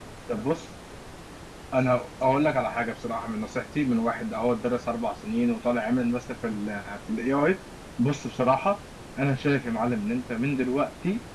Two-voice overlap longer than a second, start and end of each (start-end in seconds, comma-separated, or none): none